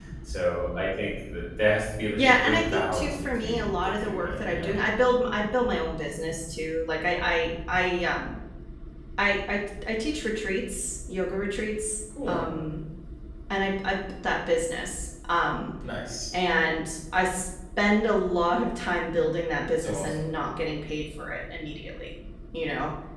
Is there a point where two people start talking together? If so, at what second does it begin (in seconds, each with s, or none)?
2.1 s